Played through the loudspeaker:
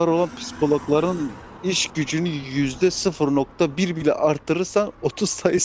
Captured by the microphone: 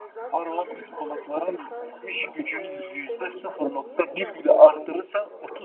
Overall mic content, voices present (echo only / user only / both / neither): both